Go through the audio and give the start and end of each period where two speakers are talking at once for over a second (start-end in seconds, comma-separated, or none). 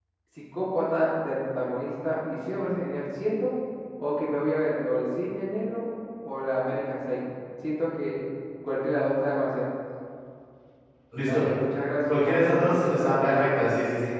12.1-13.5